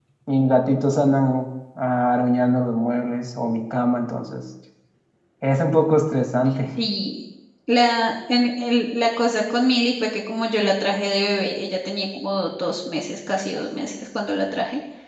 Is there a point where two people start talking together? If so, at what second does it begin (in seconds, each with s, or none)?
none